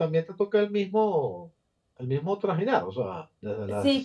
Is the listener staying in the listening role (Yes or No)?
No